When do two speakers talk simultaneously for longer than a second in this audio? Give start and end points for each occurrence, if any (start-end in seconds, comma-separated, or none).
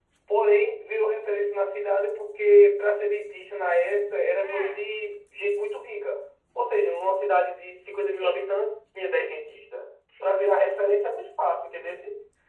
none